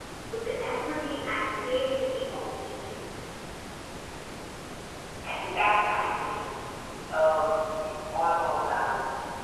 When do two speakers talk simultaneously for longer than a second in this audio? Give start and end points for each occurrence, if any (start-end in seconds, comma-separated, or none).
none